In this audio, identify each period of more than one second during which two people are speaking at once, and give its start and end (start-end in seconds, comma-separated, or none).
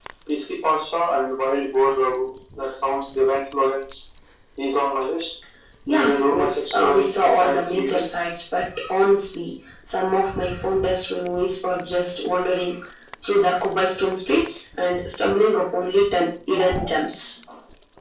5.9-8.1